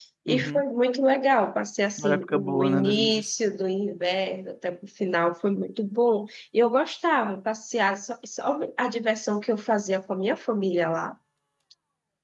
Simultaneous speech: Yes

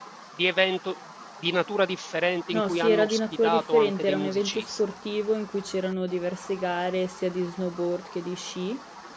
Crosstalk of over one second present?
Yes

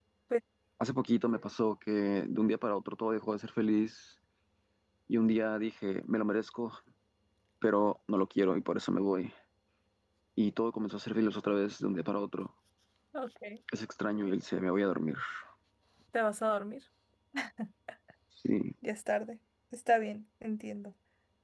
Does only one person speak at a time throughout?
Yes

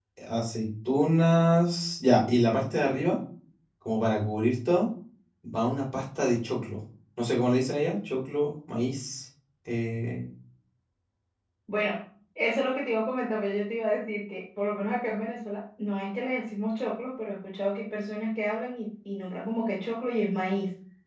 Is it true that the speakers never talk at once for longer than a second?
Yes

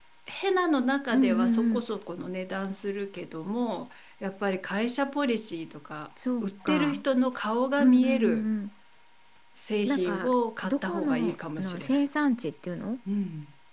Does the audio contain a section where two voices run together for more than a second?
Yes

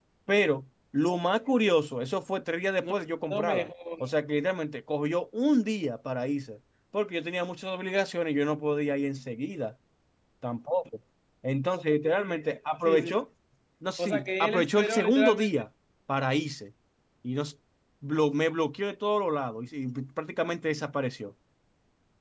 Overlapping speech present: Yes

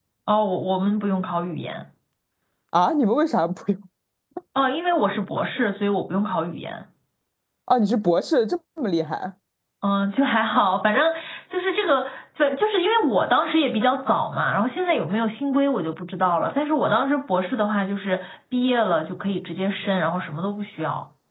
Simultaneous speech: No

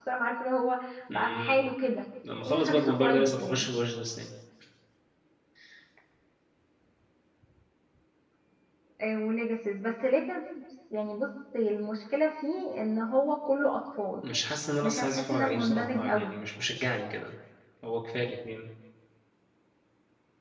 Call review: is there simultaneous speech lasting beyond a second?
Yes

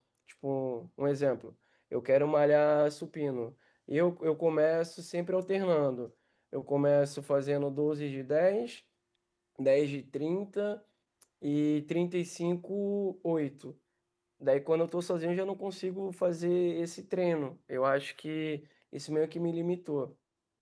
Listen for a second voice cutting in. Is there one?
No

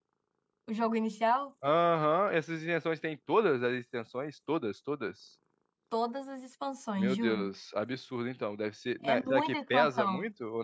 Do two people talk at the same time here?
Yes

